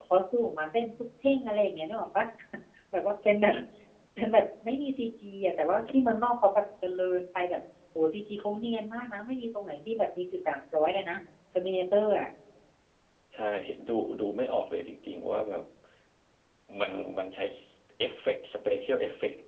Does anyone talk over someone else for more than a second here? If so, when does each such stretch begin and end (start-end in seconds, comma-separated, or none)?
none